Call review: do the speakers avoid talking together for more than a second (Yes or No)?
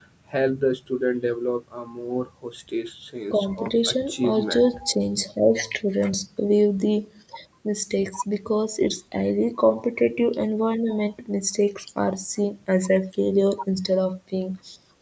No